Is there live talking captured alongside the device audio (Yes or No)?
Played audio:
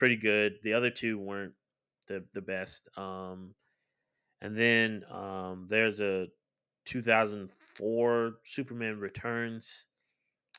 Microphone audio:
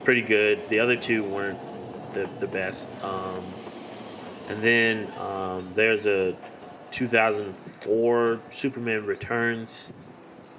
No